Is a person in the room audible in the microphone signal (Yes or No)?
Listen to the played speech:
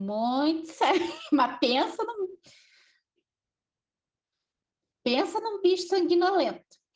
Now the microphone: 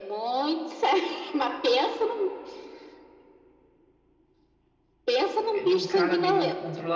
Yes